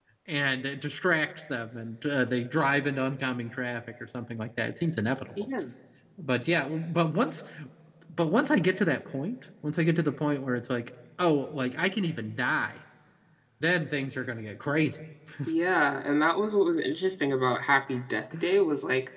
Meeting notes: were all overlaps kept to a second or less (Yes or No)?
Yes